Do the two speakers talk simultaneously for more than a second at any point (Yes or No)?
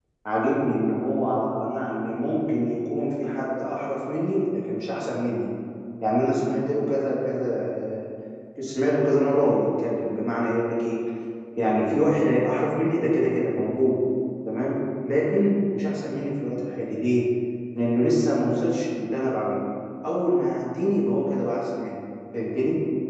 No